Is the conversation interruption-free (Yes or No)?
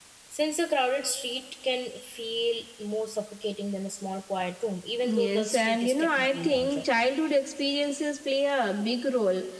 No